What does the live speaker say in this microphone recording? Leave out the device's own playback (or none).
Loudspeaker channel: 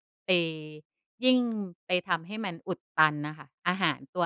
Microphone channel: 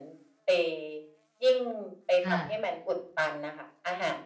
ค่ะ